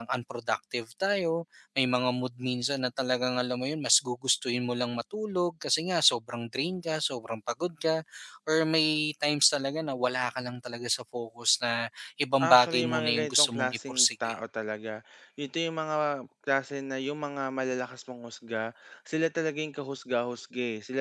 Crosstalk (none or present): present